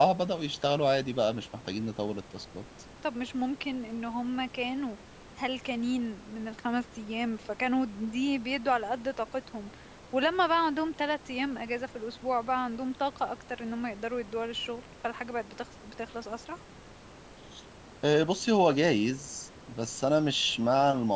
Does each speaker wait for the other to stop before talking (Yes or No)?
Yes